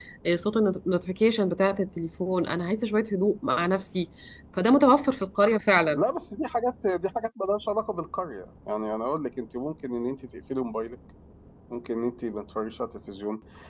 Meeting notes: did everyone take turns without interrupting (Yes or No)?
Yes